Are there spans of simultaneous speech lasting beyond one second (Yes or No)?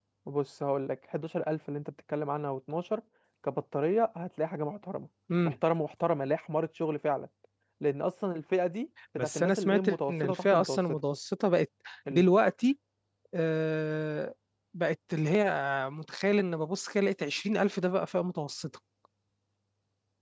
Yes